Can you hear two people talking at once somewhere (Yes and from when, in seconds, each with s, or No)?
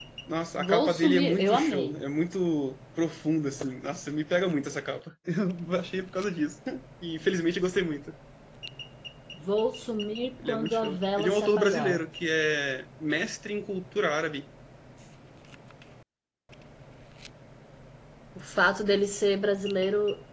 Yes, from 0.6 s